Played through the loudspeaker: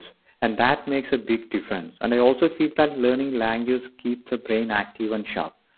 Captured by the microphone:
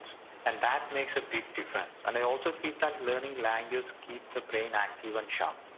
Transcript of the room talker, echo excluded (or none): none